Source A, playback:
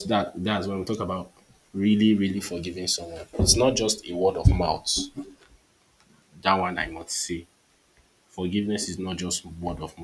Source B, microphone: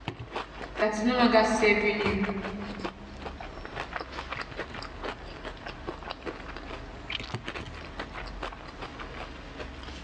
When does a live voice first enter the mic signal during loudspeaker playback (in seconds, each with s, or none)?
0.8 s